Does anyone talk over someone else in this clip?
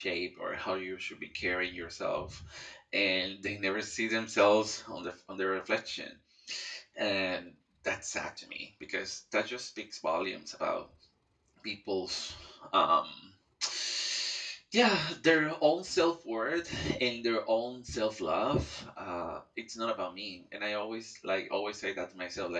No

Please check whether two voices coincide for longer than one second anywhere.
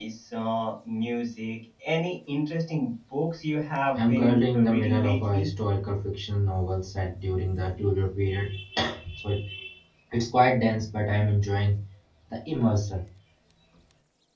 Yes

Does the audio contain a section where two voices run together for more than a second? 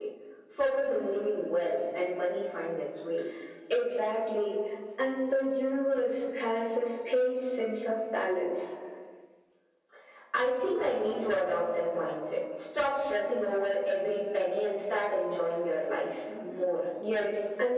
No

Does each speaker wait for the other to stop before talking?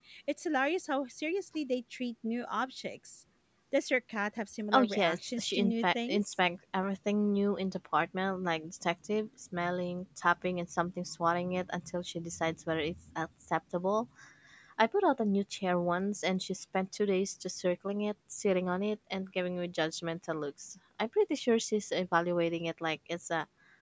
No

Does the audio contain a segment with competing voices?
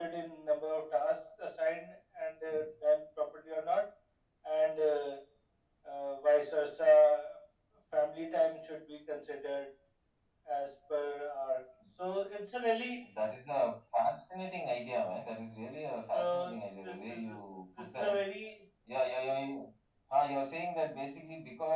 Yes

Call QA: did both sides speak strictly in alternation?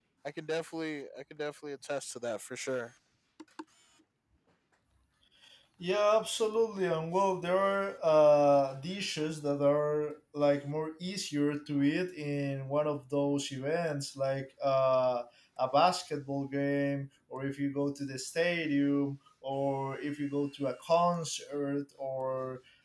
Yes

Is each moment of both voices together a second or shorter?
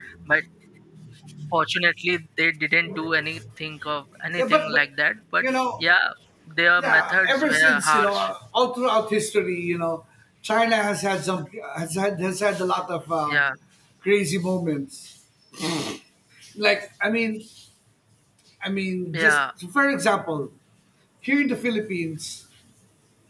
No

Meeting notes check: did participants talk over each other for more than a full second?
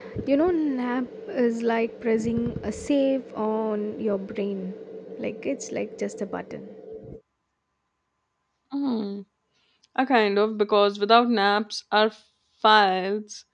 No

